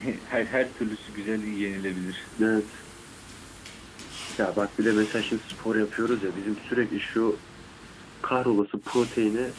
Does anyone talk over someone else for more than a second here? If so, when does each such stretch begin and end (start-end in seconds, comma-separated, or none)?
none